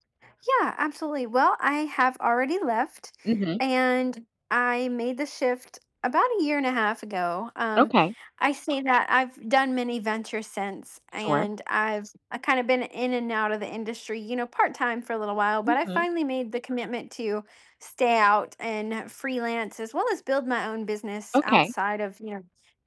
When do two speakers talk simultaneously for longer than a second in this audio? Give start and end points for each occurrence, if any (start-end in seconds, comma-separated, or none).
none